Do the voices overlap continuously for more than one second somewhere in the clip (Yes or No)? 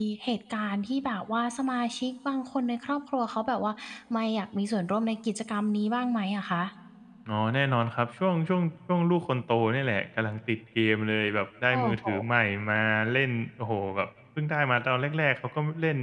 No